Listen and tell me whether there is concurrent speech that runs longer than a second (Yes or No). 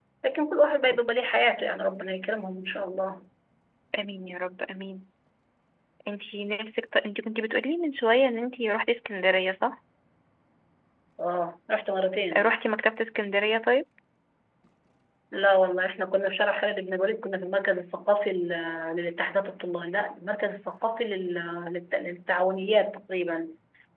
No